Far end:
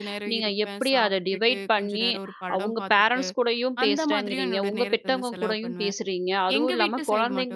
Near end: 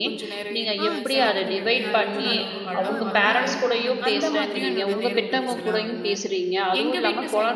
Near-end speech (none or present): present